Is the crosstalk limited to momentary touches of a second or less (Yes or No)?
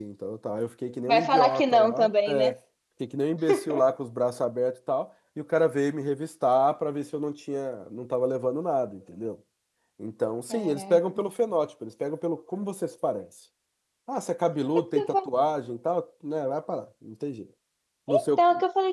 No